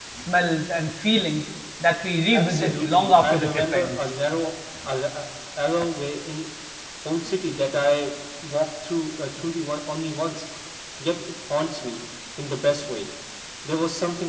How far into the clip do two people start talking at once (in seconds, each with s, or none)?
2.3 s